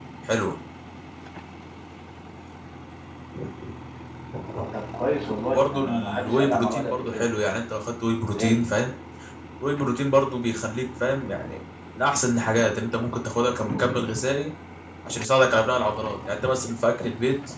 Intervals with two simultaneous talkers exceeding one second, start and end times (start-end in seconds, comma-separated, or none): 5.5-7.2